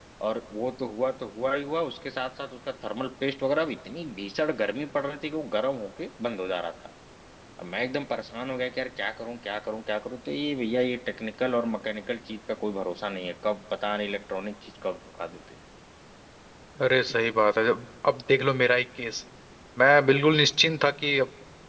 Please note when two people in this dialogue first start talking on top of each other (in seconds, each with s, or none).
none